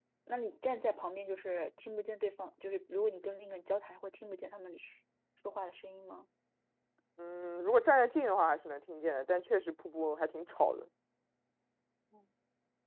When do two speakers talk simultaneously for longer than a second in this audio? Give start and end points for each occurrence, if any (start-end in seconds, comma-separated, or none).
none